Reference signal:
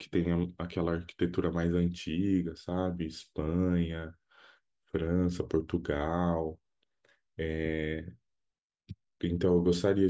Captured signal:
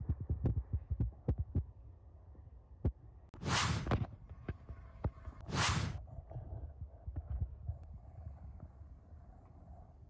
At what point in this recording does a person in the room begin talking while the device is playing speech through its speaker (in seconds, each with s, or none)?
none